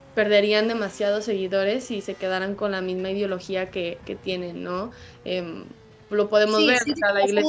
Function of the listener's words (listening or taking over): taking over